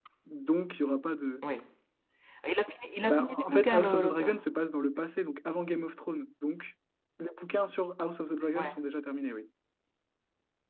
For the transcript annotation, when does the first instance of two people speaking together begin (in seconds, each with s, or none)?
3.1 s